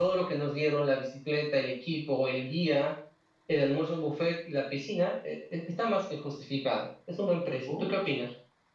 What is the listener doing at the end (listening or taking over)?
taking over